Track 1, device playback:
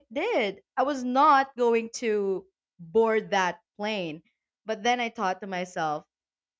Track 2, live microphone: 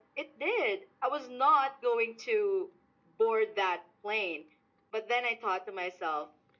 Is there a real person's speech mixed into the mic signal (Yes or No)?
No